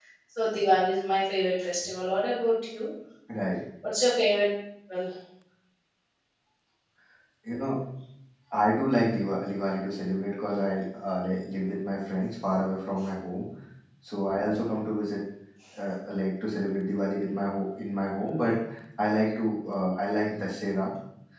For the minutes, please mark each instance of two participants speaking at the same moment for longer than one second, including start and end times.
none

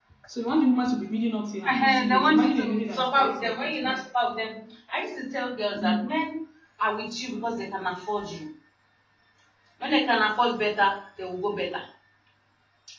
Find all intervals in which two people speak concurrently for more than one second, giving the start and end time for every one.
1.6-4.0

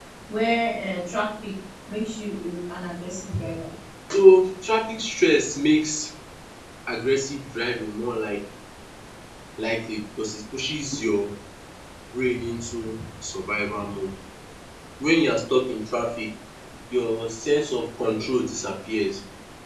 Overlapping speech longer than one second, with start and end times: none

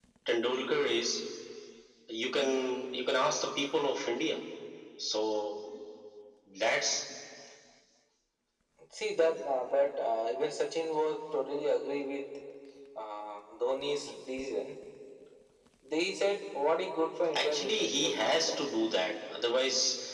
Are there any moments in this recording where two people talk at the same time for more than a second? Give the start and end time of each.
17.4-18.6

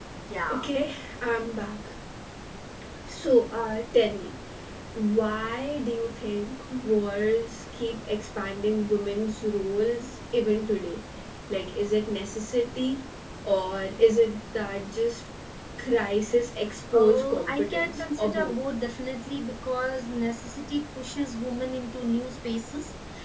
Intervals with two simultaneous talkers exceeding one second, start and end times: 17.0-18.5

